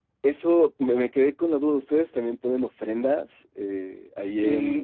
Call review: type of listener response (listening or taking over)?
taking over